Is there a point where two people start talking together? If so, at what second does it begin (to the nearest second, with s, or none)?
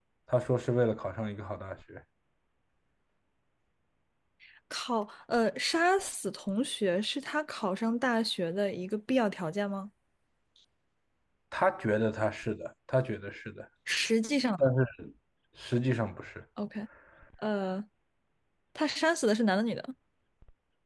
none